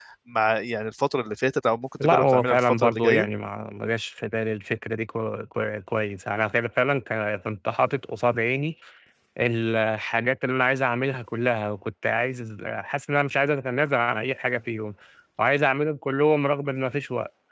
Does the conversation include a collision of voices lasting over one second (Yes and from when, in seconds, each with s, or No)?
Yes, from 2.0 s